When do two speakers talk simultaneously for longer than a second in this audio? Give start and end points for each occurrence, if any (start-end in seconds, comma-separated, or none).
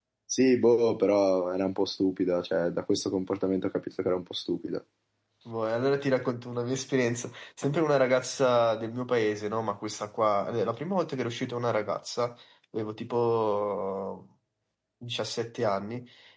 none